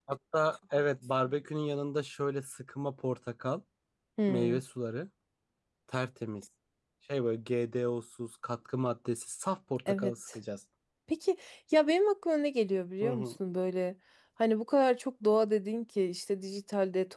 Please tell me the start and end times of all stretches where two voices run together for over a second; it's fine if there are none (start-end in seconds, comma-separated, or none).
none